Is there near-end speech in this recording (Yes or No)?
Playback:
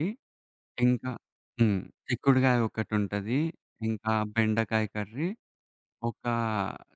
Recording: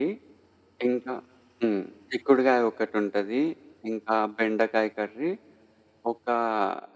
No